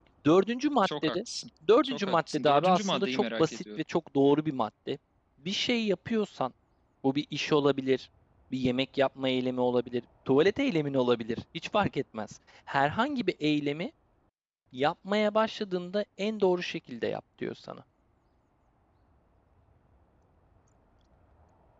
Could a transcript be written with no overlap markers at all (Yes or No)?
No